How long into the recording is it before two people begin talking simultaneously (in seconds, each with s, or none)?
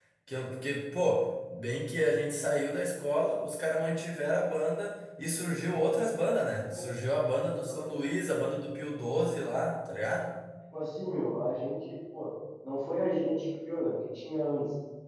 none